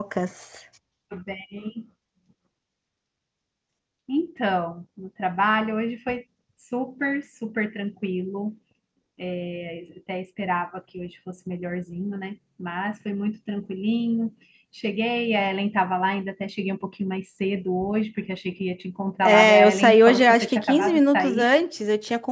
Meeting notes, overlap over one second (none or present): present